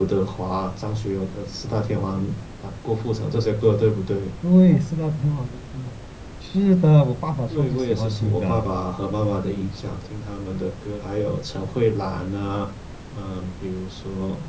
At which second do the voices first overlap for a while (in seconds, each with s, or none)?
7.5 s